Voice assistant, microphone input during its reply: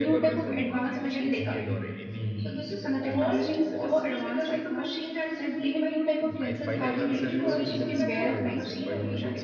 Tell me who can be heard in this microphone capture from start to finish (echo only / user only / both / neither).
both